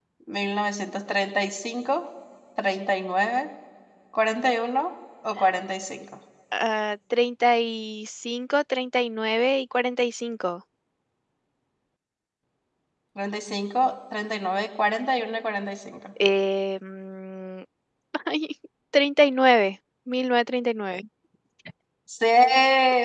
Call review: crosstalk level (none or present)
none